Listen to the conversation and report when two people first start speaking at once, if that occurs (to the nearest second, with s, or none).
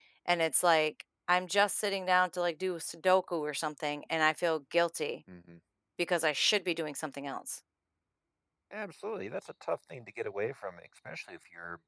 none